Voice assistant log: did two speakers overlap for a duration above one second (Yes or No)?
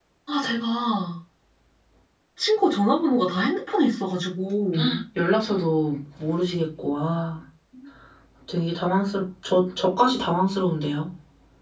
No